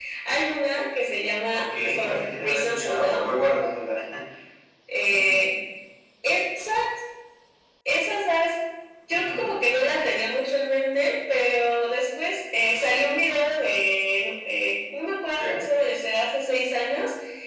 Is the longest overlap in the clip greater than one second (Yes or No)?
Yes